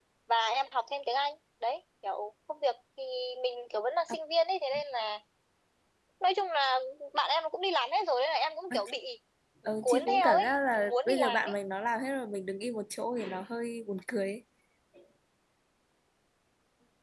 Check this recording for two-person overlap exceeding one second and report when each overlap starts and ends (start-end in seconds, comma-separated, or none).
9.8-11.5